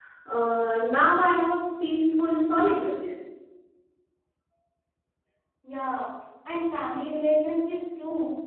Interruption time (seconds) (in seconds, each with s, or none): none